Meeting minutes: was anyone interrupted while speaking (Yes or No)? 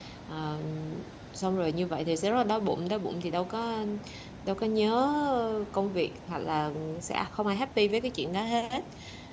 No